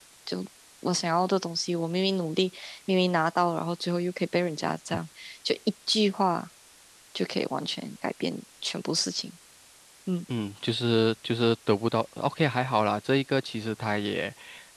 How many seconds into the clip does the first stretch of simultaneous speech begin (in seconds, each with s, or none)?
none